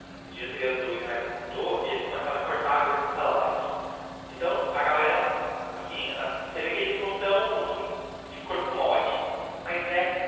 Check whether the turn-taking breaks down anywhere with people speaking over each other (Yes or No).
No